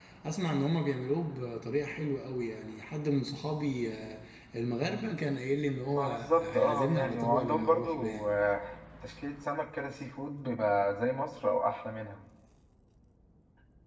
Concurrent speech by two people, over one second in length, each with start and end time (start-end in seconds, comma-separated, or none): 5.8-8.3